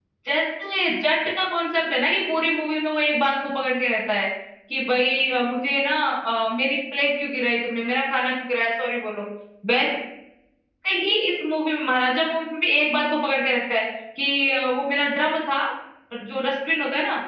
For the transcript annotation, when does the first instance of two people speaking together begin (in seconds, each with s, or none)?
none